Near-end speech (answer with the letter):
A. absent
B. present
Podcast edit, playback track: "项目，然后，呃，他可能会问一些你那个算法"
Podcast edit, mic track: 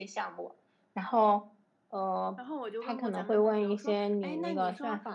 B